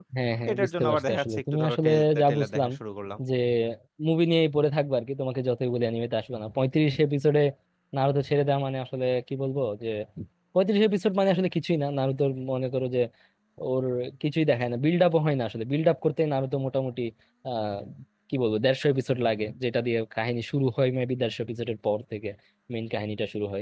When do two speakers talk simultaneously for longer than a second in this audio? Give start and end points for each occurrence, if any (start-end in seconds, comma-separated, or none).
0.5-2.7